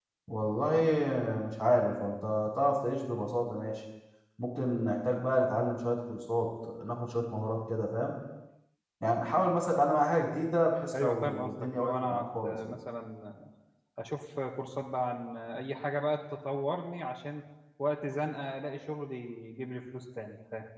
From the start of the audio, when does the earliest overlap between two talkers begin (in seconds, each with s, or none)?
10.9 s